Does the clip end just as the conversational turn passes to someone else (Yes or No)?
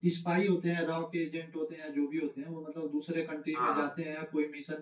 No